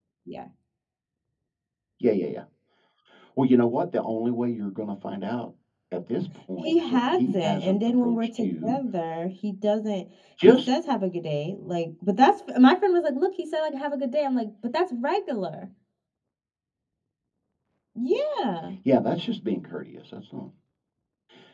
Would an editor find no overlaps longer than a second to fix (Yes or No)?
No